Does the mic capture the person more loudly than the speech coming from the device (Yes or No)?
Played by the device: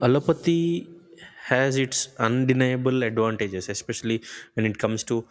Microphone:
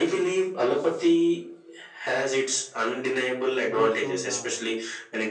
No